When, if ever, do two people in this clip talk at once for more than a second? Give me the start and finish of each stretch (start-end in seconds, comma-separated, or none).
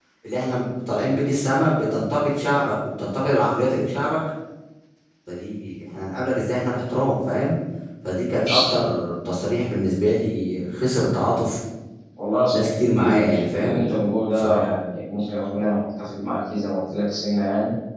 12.5-13.8